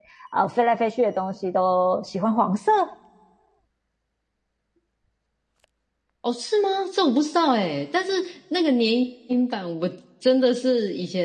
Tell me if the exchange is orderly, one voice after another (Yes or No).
Yes